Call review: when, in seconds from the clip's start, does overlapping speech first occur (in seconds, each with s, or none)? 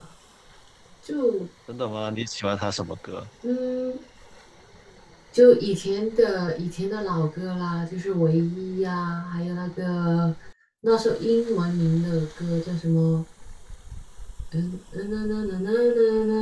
none